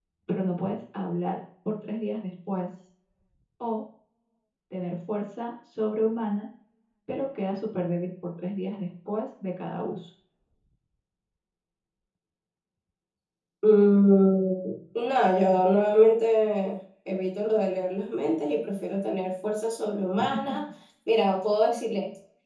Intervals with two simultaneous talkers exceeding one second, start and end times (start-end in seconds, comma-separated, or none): none